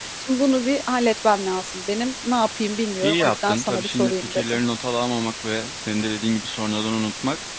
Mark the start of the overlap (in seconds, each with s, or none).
3.0 s